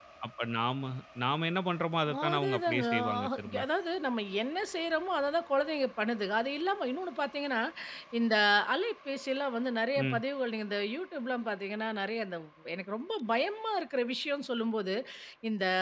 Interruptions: present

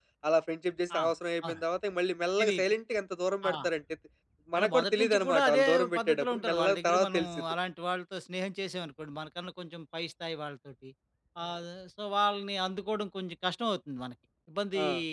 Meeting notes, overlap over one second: present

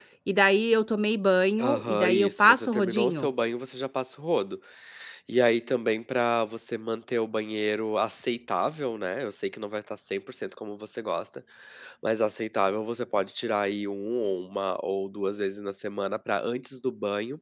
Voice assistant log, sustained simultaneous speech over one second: present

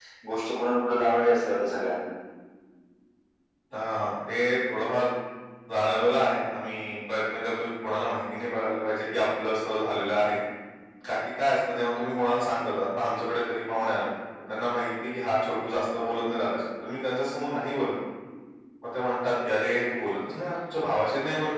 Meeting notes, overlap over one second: none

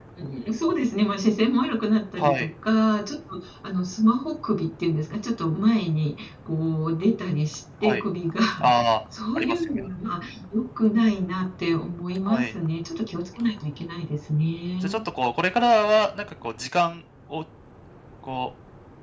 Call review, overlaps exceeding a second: none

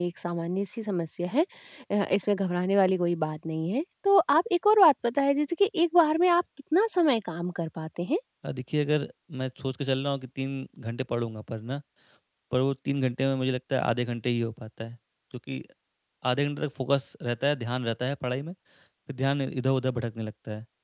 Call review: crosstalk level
none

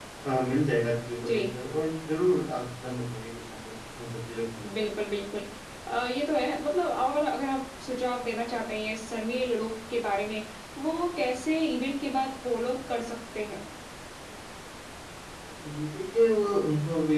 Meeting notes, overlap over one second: none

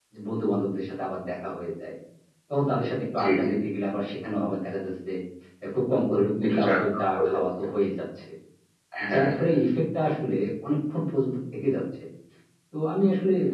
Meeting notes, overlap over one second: present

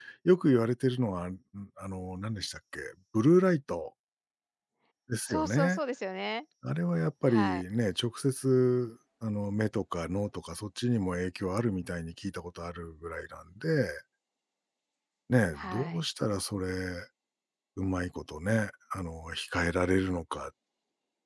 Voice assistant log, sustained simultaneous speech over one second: none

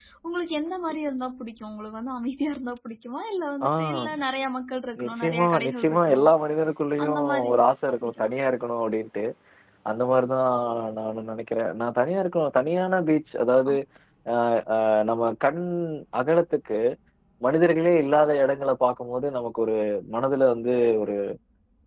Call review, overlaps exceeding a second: present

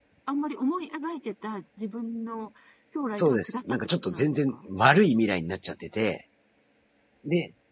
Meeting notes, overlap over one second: present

